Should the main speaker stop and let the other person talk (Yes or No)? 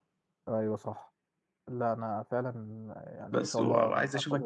Yes